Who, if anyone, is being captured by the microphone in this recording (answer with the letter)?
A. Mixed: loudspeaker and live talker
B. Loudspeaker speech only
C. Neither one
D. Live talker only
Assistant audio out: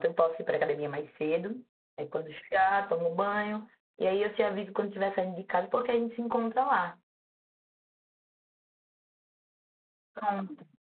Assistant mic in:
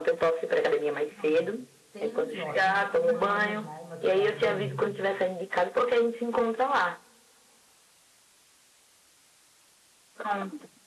A